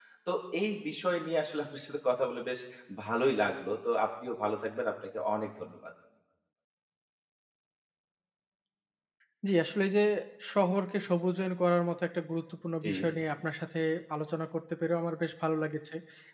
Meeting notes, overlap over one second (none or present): none